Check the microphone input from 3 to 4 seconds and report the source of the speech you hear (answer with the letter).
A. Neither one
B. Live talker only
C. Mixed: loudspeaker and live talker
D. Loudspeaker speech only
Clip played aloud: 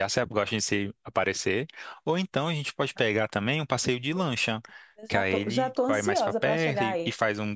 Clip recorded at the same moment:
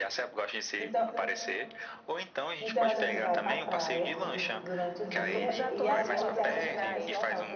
C